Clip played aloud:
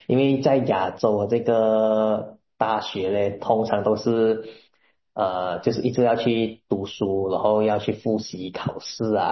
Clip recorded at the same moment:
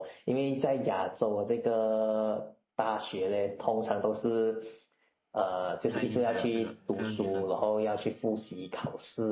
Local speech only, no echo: 太厉害了，这个这个女生，

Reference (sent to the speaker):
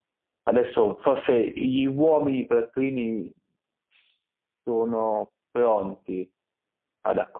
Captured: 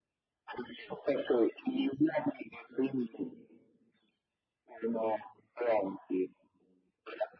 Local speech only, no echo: none

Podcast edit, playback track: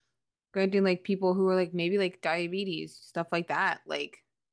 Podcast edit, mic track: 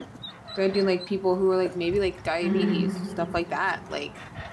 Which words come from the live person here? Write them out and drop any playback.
hmm

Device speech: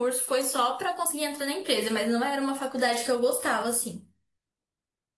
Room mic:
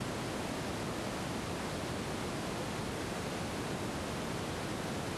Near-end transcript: none

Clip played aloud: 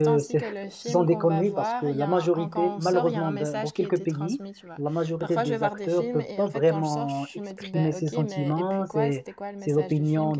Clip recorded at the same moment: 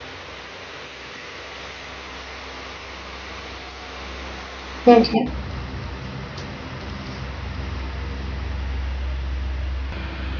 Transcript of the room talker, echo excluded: OK.

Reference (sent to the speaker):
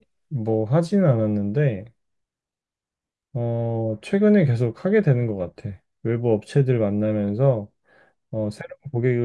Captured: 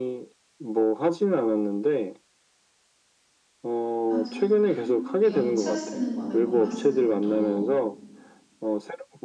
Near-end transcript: 맞아. 그, 연차 쓰는 거나 병가 쓰는 것도

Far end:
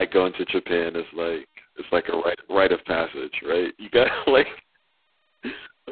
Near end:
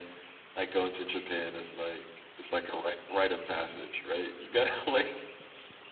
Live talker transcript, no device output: none

